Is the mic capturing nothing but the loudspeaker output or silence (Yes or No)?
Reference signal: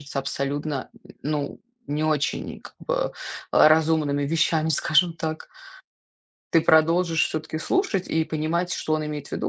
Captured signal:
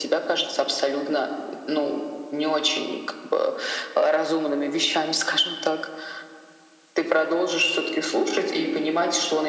Yes